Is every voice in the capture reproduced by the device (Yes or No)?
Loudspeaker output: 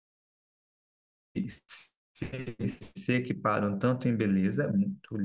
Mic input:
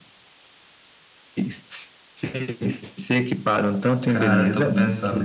No